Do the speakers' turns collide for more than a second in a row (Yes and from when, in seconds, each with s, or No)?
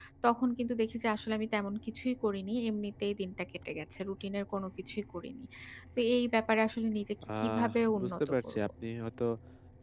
Yes, from 7.2 s